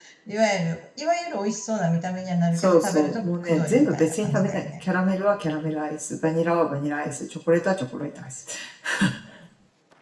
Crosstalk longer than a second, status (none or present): present